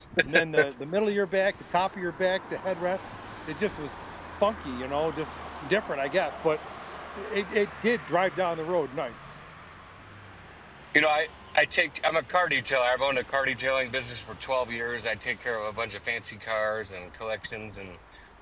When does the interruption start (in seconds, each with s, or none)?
none